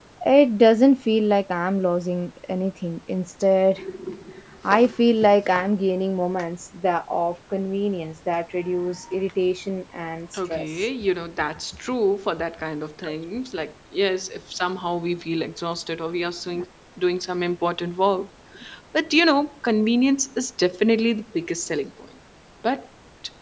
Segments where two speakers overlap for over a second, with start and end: none

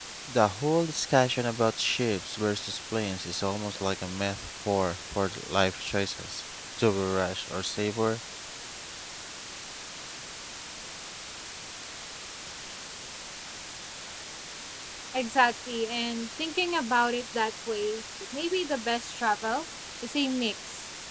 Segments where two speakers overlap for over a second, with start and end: none

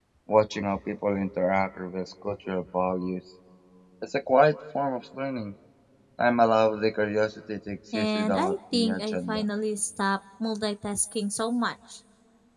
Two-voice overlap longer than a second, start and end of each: 7.9-9.4

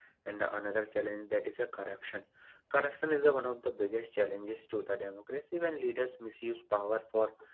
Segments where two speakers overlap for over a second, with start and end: none

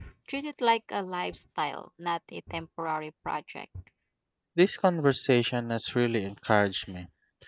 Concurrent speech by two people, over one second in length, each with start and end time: none

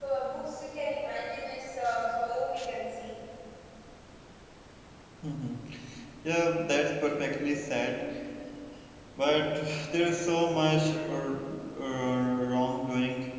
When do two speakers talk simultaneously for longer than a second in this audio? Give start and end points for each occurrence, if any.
none

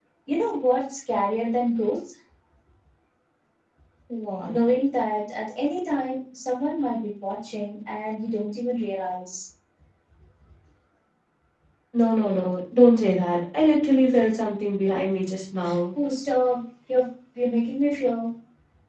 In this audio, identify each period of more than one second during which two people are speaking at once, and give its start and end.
none

